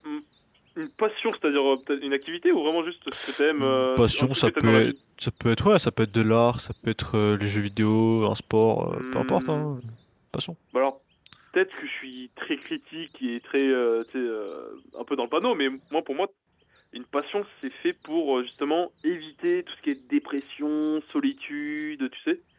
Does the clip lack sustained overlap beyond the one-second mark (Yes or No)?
No